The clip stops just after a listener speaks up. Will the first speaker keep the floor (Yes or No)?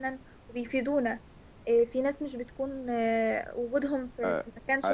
No